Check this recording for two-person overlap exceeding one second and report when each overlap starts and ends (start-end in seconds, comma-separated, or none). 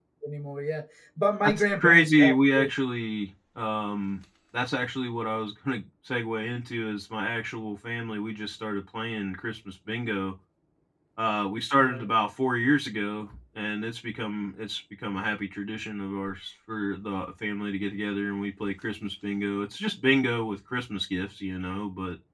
1.4-2.7